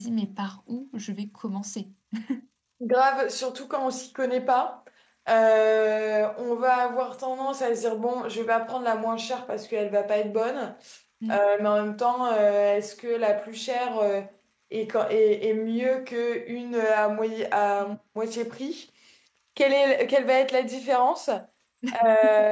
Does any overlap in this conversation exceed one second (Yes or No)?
No